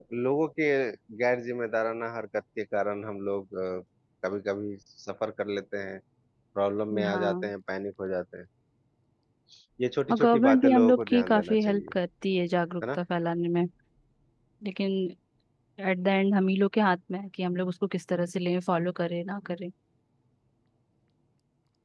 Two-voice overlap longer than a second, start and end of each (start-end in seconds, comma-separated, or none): 10.1-11.9